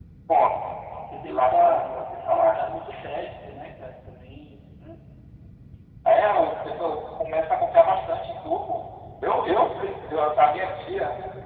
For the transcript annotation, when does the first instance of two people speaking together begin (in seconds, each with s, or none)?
1.2 s